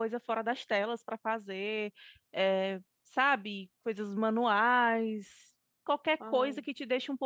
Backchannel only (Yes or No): Yes